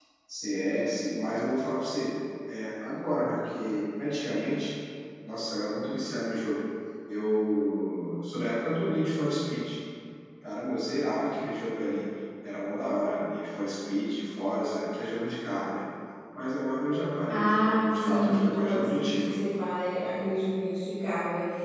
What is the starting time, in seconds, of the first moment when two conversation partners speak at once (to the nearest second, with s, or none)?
17 s